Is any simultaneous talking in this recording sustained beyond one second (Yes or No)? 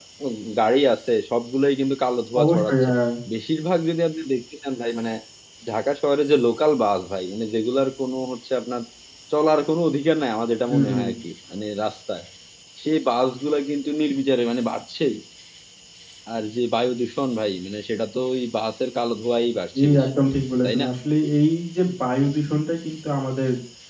No